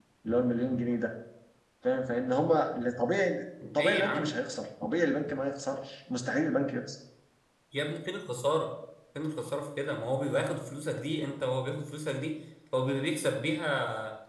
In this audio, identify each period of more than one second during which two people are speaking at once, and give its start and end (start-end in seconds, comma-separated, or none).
none